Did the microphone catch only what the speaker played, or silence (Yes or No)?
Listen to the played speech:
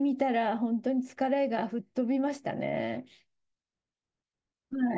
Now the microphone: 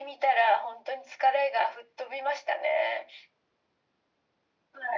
Yes